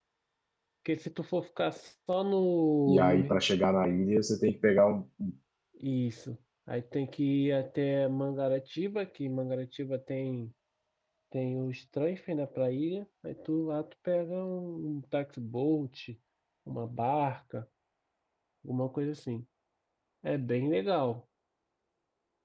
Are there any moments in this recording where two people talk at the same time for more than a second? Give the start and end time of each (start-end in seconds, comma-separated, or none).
none